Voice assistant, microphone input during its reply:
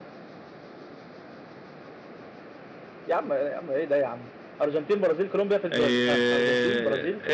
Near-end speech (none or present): present